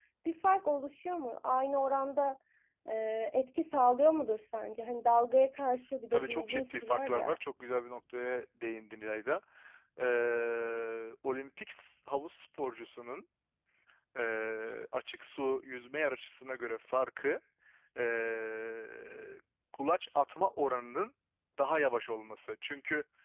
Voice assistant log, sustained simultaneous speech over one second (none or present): present